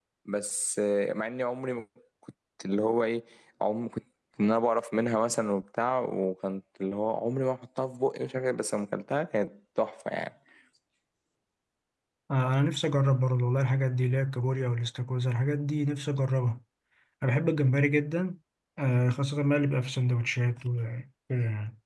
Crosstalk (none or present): none